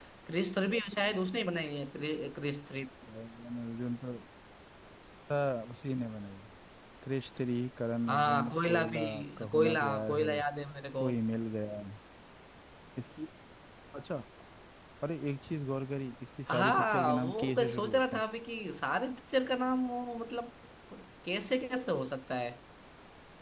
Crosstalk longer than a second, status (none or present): present